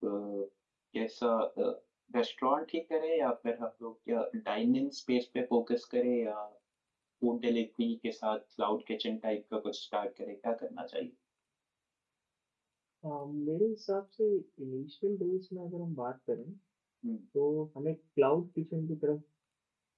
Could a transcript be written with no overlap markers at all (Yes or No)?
Yes